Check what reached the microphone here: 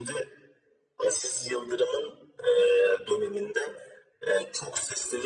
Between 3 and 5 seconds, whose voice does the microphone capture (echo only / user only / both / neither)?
echo only